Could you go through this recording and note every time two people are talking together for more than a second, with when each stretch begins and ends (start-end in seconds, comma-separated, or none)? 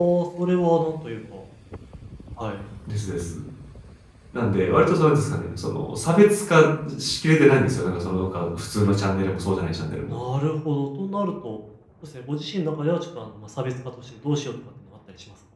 none